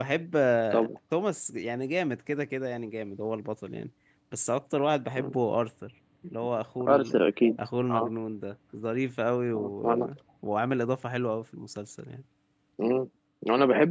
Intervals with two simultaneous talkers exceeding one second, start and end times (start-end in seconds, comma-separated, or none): none